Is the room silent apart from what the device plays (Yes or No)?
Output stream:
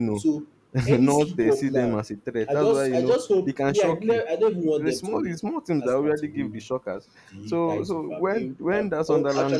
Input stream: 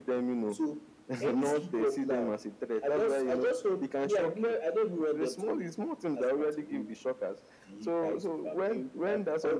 Yes